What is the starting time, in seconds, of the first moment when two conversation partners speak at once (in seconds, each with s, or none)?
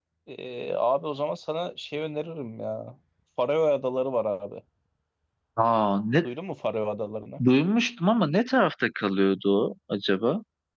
none